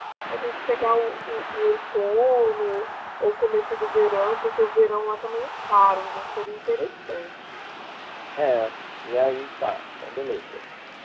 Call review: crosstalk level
none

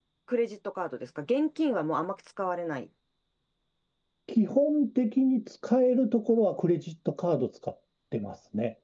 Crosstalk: none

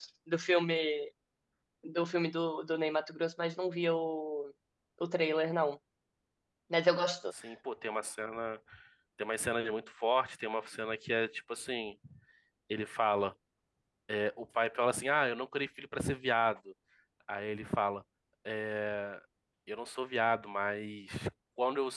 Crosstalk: none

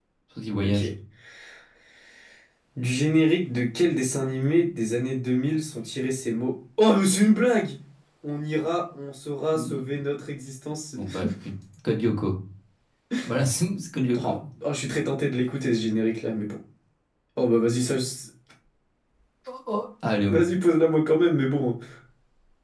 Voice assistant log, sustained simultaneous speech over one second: none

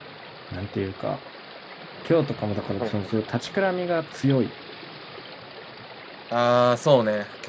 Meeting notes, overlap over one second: none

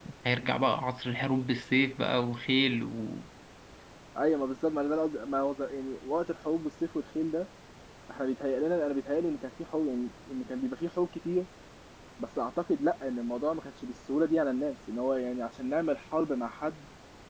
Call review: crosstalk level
none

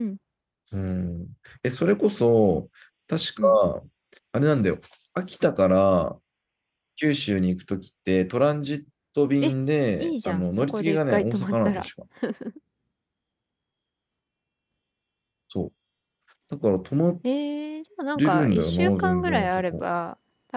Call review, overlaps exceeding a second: present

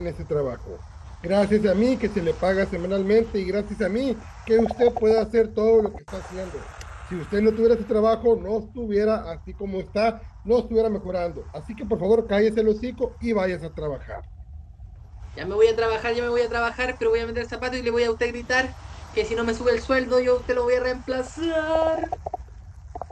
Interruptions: none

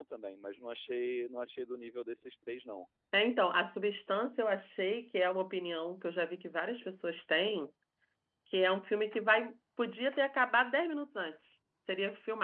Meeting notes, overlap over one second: none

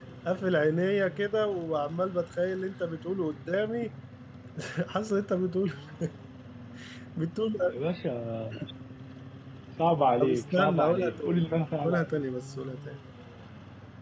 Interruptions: present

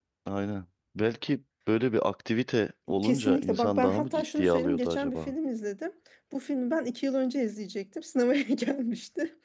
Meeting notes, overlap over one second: present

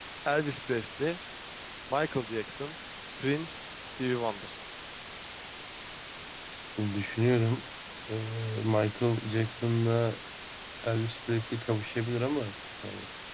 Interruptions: none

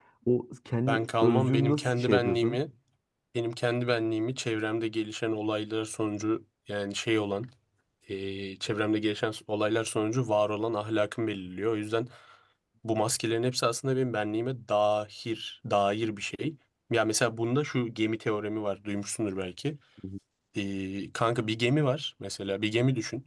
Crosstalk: present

